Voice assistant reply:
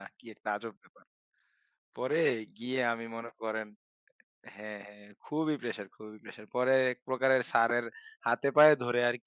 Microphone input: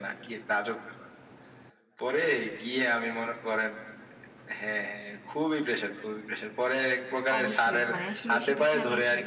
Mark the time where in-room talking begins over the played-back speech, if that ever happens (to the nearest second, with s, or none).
7 s